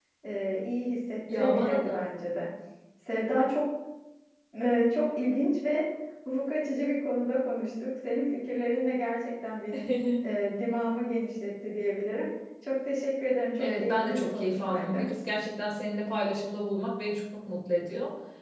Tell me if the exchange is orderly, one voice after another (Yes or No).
No